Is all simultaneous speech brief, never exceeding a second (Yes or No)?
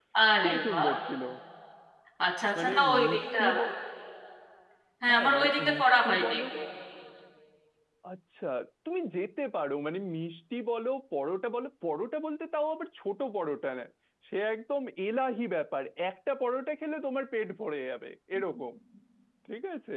No